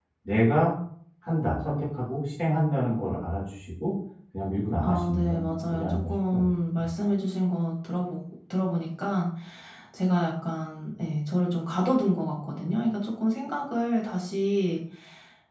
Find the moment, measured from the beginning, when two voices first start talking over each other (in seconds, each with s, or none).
4.8 s